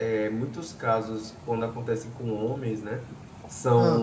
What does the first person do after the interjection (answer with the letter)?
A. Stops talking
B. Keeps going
B